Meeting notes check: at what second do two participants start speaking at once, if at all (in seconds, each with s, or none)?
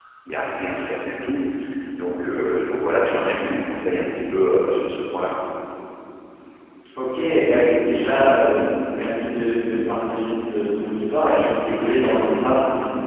none